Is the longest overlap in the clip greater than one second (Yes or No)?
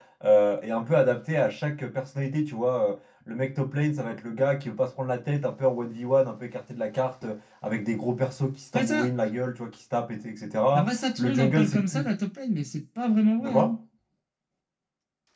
Yes